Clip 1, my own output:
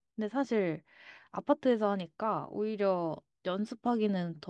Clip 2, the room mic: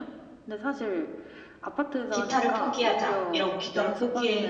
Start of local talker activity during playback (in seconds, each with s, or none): 2.1 s